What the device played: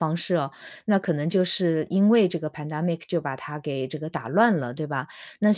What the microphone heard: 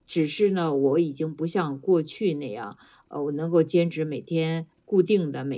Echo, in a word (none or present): none